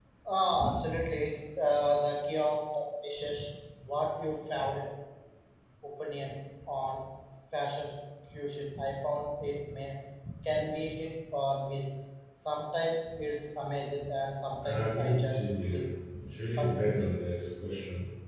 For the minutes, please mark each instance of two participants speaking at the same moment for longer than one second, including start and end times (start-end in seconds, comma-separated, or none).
14.7-15.9